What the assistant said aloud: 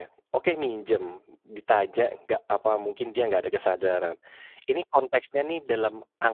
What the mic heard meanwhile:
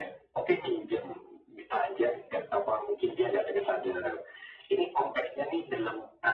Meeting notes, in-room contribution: none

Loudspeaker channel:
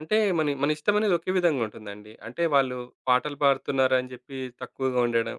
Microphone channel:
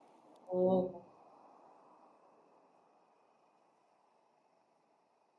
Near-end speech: present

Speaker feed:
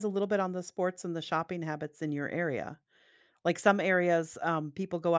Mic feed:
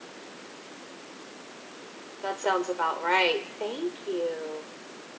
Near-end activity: present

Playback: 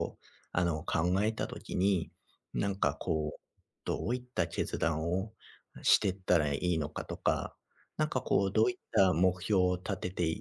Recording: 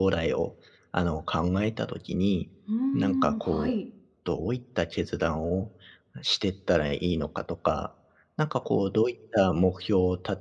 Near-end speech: present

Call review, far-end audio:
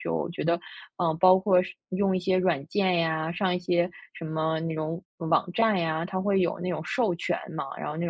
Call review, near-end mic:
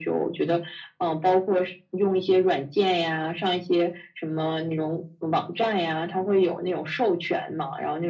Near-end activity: none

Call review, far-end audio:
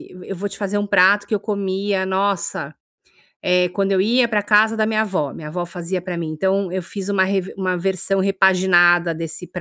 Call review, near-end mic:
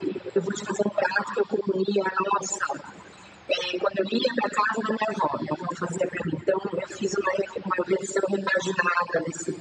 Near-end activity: none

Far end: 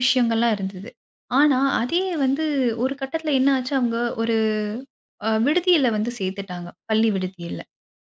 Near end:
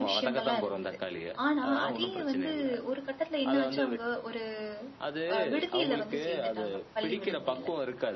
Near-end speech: present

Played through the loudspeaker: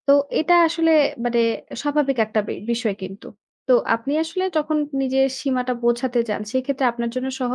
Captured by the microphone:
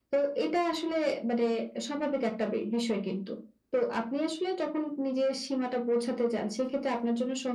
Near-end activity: none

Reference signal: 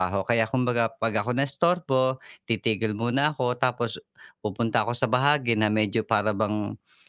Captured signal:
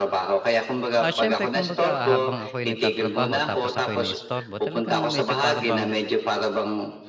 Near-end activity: present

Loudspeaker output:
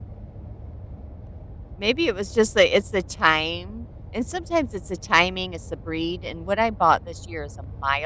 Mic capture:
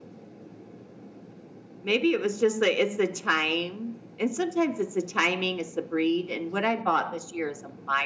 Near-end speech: none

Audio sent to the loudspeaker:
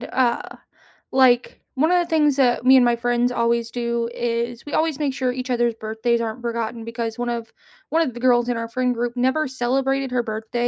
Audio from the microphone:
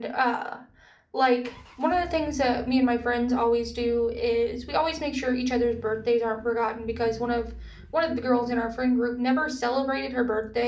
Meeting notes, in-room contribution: none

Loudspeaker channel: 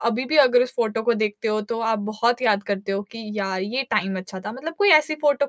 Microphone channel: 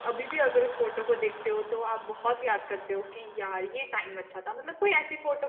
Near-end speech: none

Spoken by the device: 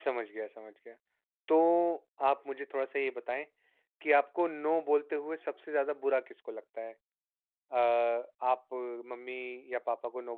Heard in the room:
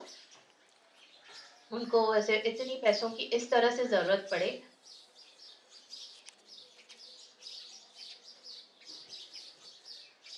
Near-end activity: present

